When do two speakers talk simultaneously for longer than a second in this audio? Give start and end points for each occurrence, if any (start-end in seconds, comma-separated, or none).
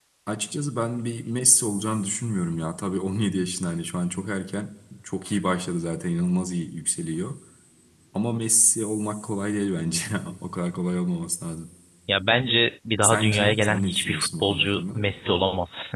13.0-15.0